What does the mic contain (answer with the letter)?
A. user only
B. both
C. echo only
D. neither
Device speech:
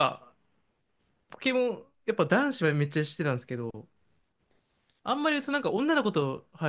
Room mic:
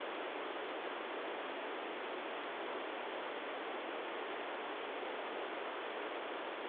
D